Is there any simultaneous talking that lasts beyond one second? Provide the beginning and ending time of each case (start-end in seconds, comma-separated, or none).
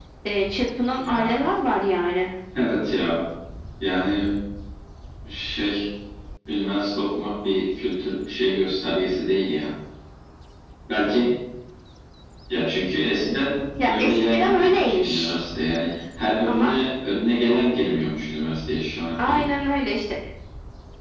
13.8-15.3